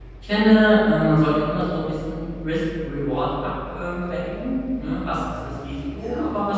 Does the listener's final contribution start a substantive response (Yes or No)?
No